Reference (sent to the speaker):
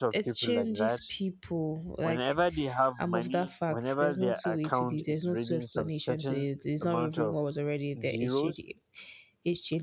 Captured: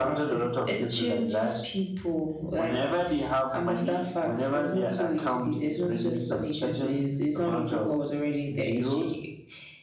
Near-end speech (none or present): none